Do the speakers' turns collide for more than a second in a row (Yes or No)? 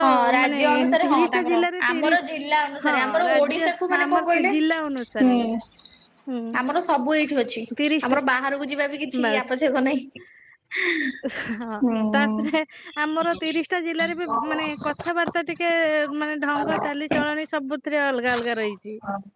Yes